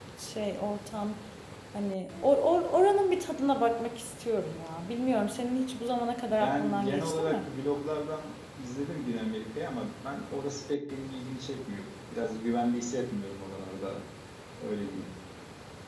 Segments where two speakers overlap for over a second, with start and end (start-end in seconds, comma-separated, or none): 6.2-7.5